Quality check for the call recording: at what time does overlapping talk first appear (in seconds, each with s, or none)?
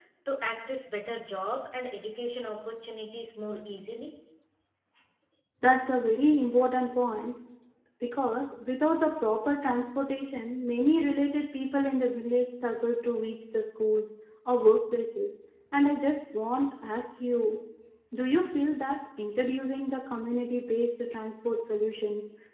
none